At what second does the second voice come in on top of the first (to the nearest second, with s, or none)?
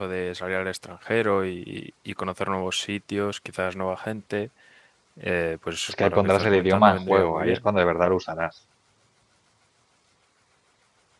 6 s